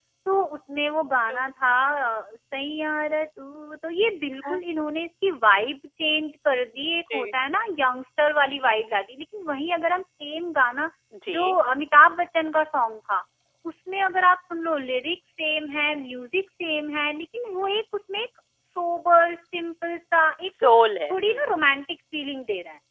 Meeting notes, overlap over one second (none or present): none